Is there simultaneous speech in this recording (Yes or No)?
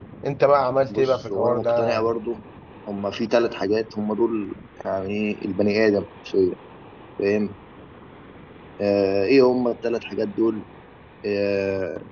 Yes